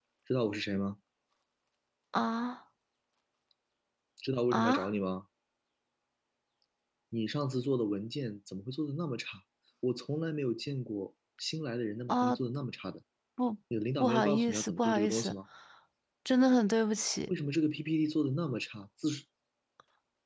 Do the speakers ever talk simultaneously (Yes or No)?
Yes